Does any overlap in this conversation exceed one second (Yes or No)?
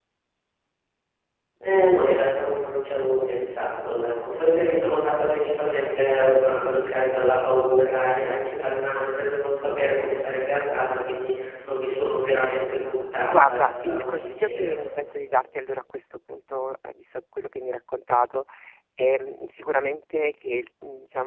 Yes